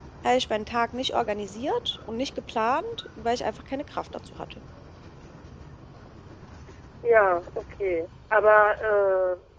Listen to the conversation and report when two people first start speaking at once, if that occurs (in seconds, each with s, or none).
none